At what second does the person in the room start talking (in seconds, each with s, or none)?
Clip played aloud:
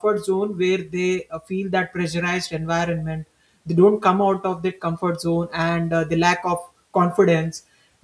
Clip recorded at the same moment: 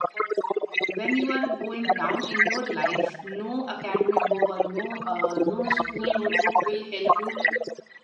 0.8 s